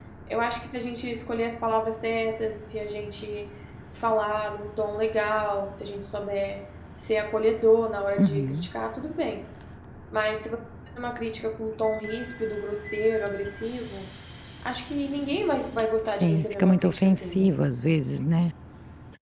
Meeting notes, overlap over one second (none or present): present